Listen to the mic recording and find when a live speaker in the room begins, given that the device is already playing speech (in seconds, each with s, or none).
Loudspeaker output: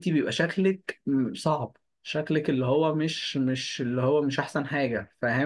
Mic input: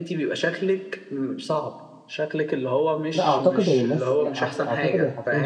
3.1 s